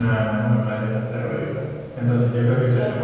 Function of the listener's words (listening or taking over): listening